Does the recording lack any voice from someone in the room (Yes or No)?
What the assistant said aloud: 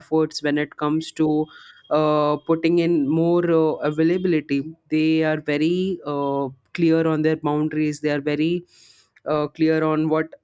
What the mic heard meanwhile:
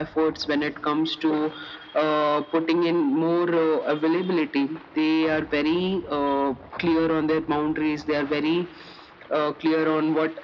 Yes